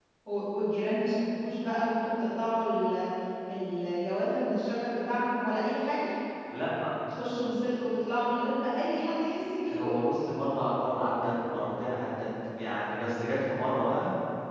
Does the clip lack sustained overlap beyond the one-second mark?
Yes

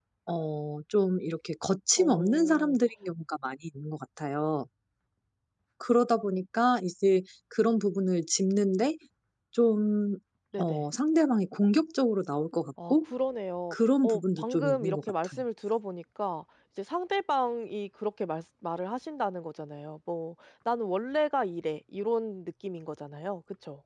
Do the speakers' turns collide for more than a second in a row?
Yes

